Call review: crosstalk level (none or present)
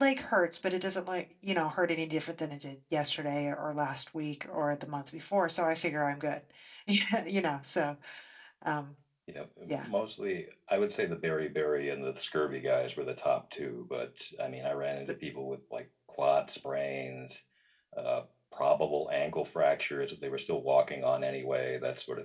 none